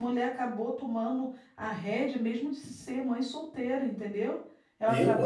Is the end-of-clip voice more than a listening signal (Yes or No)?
No